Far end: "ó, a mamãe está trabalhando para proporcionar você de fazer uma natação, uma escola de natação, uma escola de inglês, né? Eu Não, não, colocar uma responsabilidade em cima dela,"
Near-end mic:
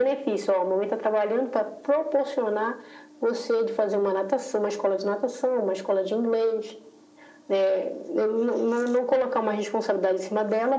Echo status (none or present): present